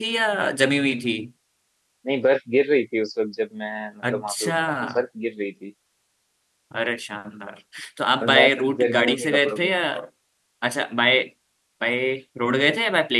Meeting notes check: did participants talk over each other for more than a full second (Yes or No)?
Yes